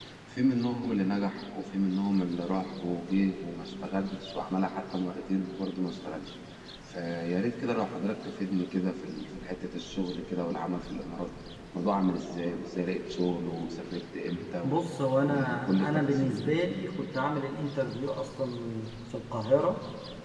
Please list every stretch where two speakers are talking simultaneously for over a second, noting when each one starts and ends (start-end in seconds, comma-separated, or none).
15.2-16.5